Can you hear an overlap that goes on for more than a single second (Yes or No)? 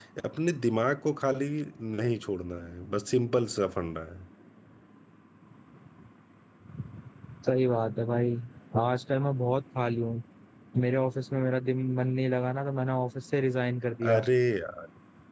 No